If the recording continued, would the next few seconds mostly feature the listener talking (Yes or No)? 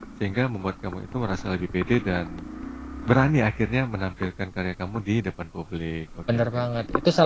Yes